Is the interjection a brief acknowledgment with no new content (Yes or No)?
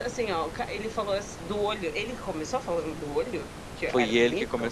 No